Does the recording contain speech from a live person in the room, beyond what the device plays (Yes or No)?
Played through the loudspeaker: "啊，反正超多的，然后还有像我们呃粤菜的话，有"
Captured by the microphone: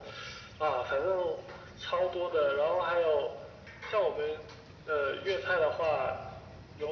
No